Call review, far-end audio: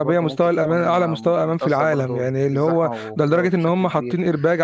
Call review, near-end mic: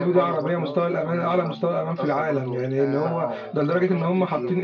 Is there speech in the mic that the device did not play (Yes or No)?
Yes